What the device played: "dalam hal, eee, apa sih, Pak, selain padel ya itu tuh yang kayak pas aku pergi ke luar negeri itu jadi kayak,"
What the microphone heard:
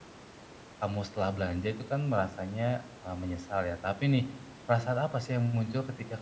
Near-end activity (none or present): present